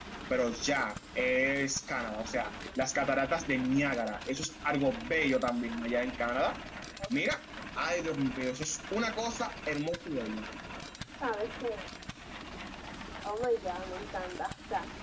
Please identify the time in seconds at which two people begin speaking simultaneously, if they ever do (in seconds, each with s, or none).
none